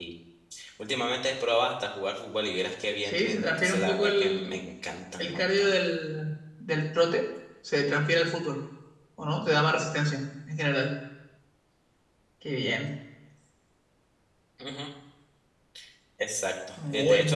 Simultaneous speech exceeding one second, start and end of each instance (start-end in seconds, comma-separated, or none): 3.0-4.5